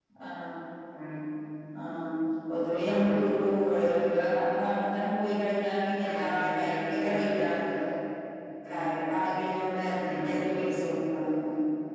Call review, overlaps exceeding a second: present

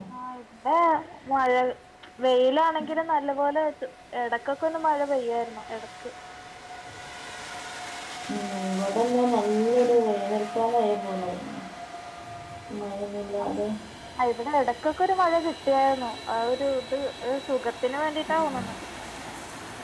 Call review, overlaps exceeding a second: none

